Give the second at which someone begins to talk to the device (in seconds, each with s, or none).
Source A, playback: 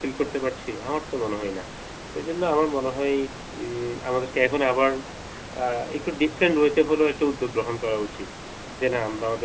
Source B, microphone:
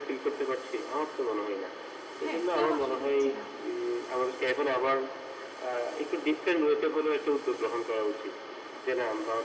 2.2 s